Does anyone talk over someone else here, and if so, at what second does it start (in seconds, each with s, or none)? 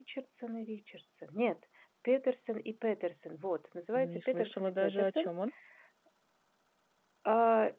4.0 s